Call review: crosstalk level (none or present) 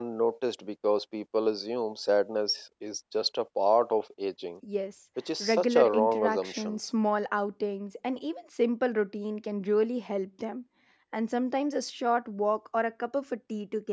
present